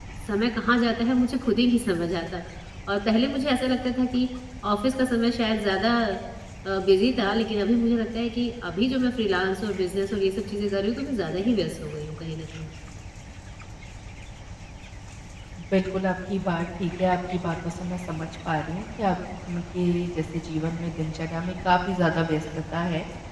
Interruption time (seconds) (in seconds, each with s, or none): none